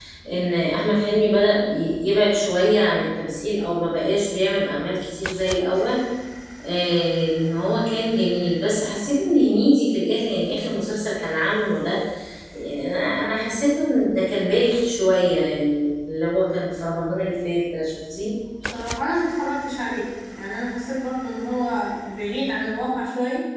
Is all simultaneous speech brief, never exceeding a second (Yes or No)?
Yes